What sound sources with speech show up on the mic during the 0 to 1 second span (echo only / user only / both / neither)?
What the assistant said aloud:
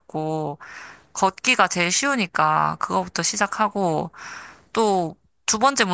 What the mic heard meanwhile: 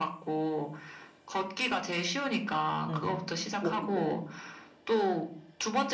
echo only